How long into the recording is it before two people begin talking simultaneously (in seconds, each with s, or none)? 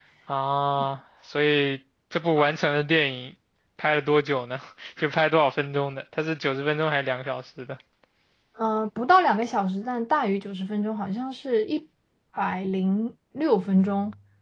none